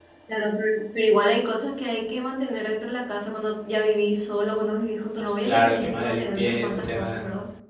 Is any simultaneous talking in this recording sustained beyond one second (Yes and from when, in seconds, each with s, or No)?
Yes, from 5.4 s